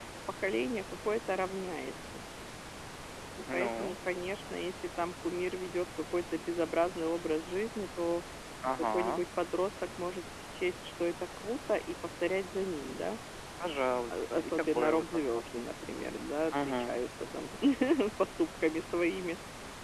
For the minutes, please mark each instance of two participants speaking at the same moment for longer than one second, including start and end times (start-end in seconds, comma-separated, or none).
14.1-15.7